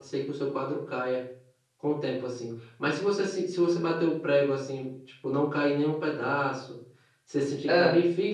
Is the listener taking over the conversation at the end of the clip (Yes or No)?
No